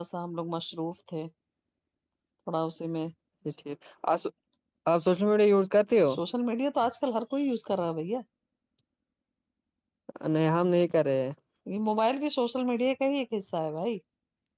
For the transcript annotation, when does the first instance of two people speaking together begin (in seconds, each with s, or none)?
none